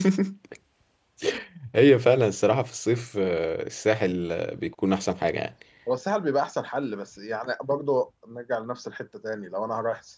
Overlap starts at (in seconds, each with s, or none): none